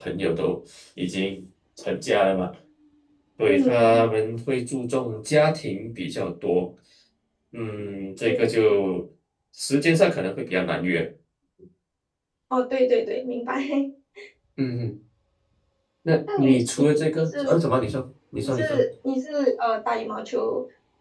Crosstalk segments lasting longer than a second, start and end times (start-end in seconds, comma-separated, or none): 16.4-17.6